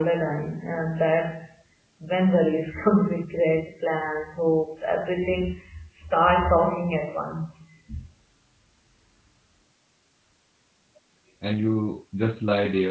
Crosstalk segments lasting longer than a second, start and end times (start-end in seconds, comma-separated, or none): none